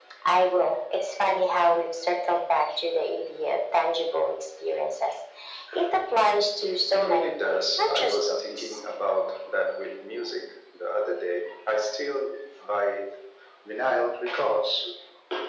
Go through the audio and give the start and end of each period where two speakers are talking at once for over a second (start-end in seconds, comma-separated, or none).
6.9-8.8